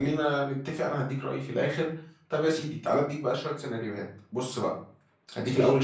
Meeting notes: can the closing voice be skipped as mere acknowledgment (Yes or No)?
Yes